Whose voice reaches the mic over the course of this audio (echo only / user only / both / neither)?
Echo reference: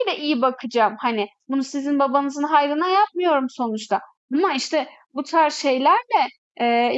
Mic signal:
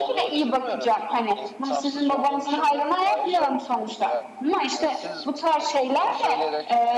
both